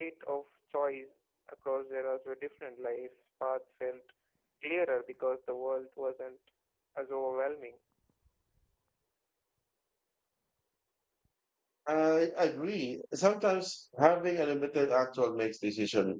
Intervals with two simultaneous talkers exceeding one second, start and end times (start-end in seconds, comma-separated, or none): none